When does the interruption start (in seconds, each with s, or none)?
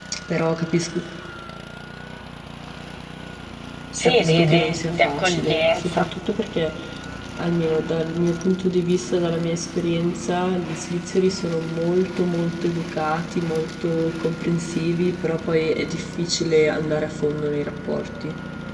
4.0 s